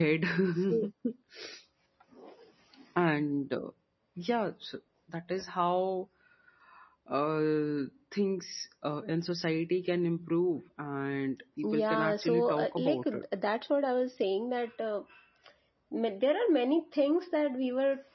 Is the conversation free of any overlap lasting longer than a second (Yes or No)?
No